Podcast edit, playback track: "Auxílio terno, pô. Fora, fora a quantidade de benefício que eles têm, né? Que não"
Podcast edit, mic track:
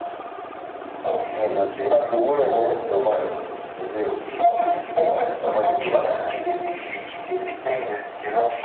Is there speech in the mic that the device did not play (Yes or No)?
Yes